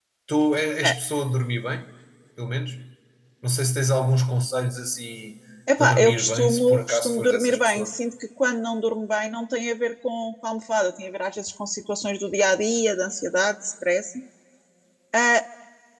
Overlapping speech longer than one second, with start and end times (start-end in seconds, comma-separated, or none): 5.8-7.9